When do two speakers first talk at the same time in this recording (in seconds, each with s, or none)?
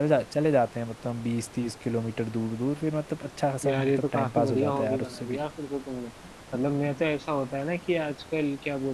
3.6 s